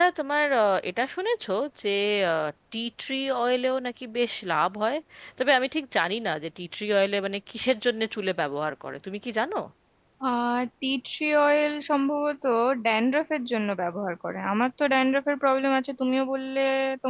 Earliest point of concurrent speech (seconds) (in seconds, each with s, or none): none